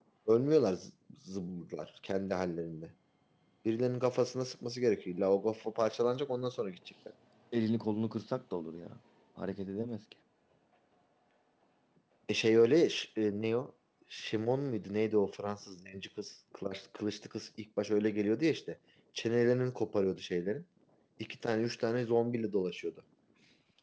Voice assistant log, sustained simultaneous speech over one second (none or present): none